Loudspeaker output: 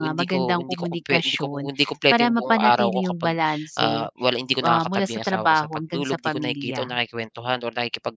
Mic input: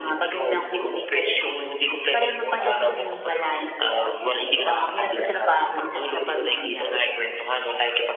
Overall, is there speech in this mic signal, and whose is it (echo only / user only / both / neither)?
echo only